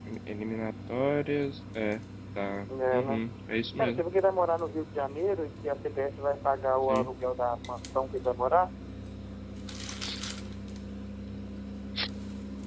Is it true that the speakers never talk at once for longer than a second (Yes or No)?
Yes